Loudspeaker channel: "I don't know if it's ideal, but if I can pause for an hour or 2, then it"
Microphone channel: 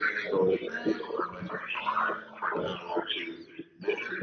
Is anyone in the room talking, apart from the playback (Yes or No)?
Yes